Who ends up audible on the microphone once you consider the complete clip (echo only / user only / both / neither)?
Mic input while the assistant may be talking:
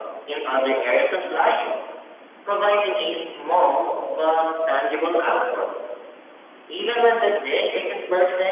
echo only